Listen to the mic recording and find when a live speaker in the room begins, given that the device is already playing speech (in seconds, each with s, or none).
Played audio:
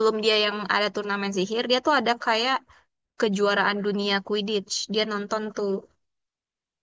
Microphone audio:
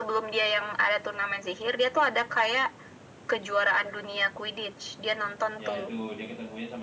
5.6 s